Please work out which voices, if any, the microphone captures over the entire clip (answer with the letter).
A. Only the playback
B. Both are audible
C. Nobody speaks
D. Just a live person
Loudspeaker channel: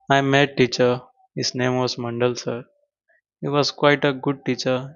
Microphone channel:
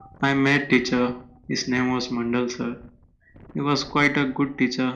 A